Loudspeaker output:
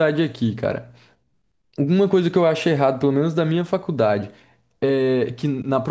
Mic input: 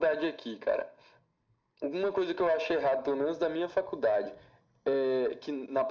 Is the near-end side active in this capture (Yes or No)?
No